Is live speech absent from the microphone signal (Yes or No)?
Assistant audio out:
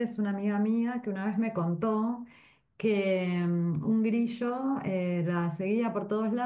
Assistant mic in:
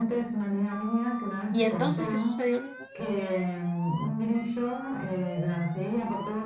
No